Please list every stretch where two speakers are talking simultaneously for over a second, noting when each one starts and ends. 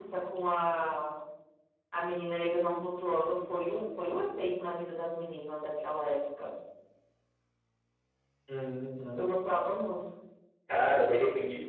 none

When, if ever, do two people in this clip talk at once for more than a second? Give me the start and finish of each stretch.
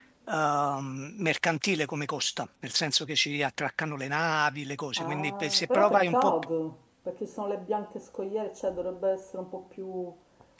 5.0-6.3

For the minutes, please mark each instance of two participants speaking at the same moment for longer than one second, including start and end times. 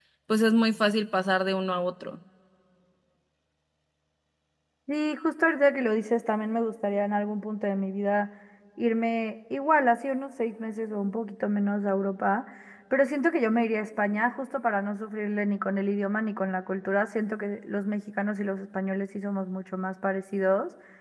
none

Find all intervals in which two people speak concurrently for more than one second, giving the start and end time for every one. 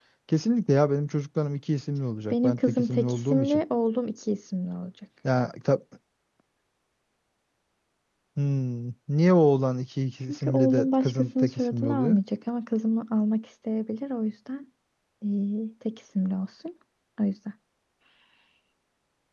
2.3-3.6, 10.3-12.2

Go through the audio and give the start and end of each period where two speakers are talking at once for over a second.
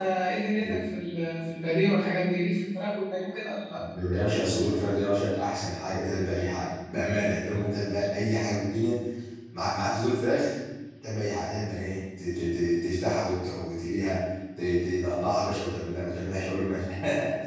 none

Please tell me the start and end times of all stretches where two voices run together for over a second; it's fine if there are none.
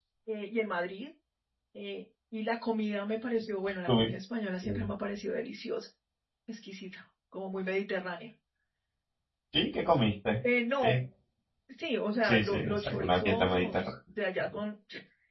12.2-13.9

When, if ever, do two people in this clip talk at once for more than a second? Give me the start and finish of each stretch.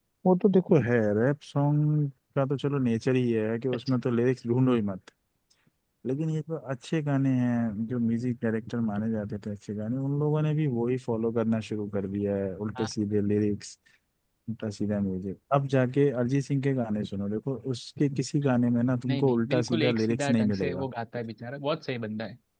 19.1-20.9

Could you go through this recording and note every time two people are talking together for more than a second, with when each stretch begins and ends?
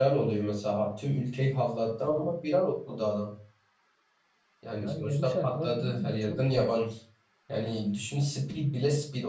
4.8-6.4

